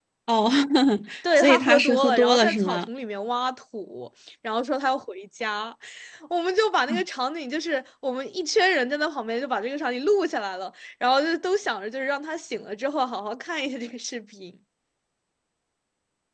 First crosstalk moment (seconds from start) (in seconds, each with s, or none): 1.4 s